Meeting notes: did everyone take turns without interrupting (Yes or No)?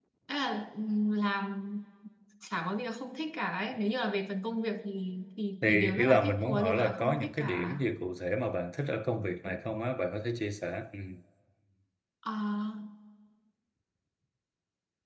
No